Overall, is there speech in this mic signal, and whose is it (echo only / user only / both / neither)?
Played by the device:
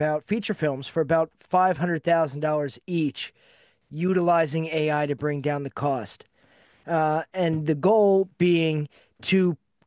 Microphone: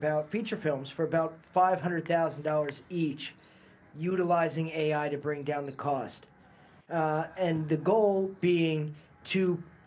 echo only